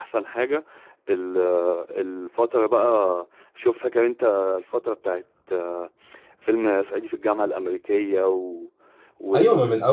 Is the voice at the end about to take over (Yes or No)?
Yes